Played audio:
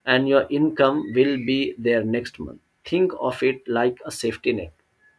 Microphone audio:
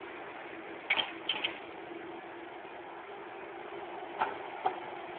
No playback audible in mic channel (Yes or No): Yes